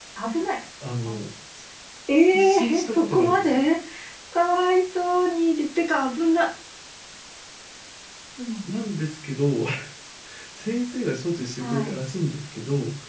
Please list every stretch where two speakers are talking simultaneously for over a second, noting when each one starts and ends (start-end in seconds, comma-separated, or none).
2.3-3.6